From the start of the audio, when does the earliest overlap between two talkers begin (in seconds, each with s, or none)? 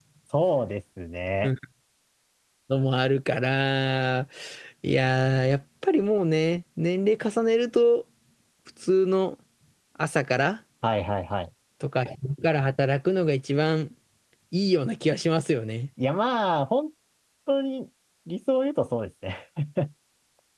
none